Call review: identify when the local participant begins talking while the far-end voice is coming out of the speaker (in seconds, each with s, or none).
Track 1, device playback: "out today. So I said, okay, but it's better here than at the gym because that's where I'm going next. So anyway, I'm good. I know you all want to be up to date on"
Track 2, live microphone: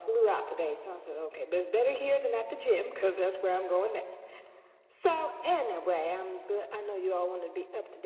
none